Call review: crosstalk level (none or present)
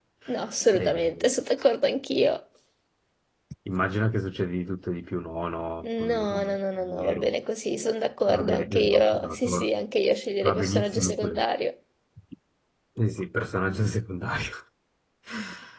present